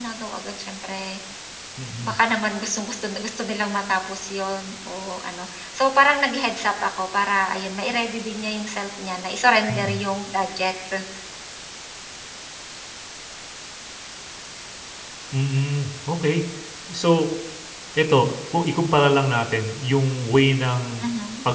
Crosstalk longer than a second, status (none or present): none